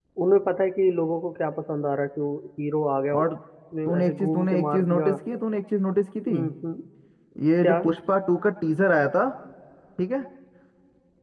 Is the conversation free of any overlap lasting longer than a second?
No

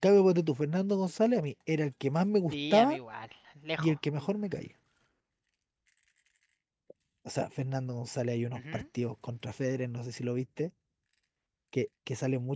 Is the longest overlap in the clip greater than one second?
No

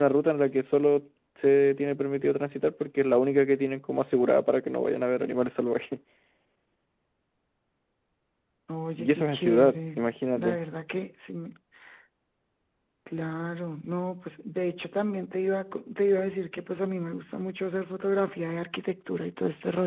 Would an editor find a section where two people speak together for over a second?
Yes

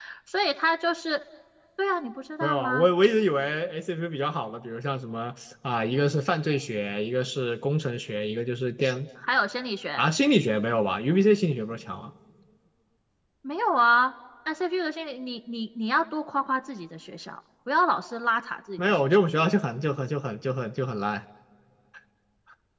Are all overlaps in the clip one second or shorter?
Yes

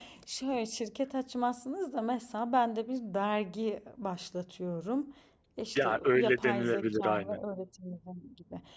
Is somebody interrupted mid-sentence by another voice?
Yes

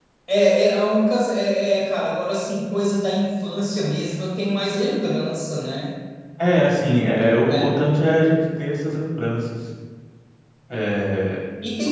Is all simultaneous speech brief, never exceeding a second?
Yes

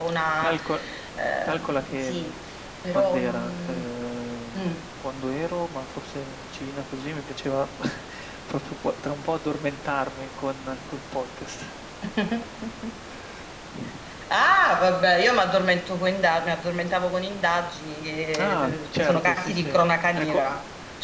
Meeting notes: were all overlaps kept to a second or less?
No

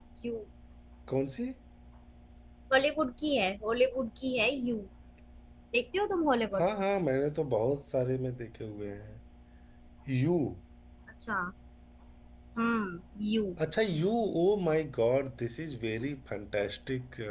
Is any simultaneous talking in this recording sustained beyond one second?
No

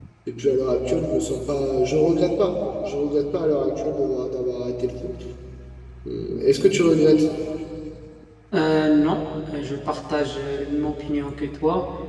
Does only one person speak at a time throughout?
Yes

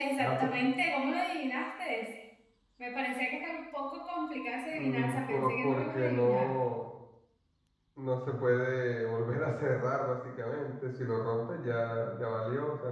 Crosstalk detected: Yes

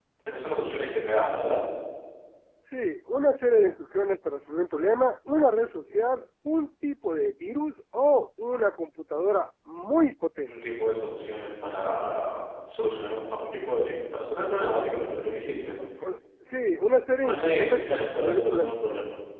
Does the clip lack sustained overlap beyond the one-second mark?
No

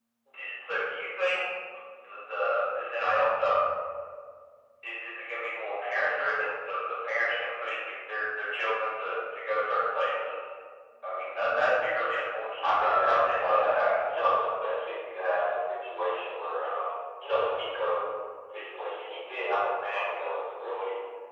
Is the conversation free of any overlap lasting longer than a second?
No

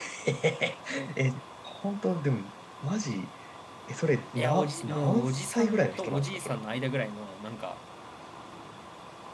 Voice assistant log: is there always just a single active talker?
No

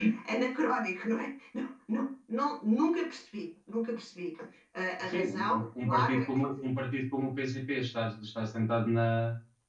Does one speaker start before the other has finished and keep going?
Yes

